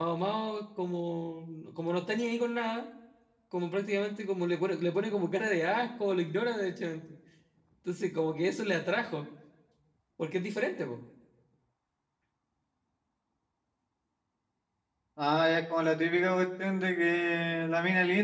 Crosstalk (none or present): none